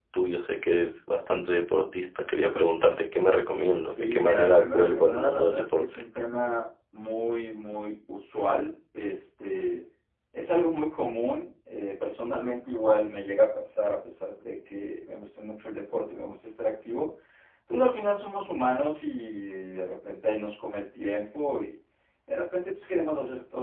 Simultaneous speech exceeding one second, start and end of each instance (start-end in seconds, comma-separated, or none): 3.8-6.0